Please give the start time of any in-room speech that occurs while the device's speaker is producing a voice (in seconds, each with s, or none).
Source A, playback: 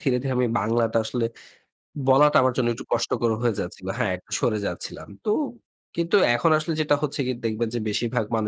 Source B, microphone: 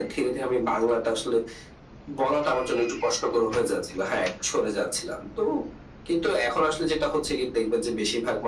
none